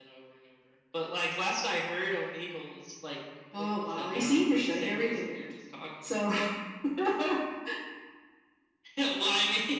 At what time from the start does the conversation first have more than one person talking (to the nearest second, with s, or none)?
4 s